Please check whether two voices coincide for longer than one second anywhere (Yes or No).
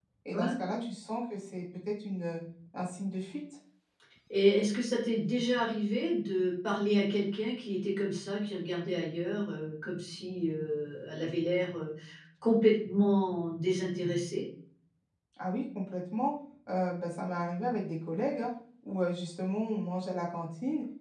No